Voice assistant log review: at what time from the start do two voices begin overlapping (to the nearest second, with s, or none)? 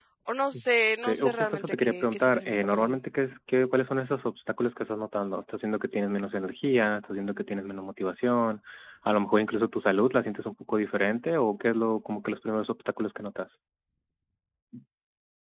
1 s